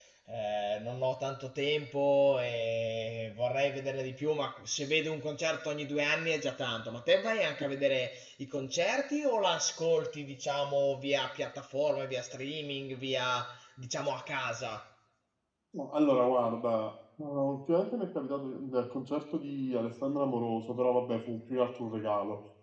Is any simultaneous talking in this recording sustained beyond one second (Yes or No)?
No